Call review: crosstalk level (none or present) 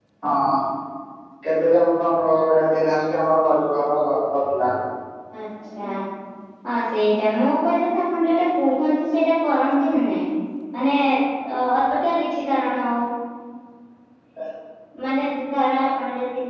none